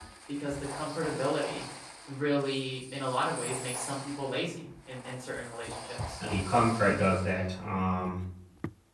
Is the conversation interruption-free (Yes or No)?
Yes